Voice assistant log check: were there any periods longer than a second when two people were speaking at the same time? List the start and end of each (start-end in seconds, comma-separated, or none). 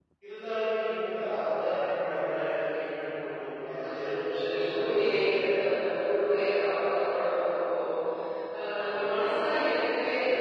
3.6-5.4